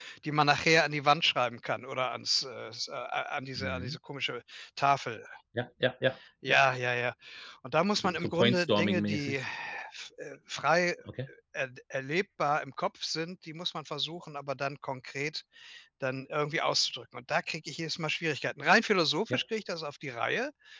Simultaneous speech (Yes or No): Yes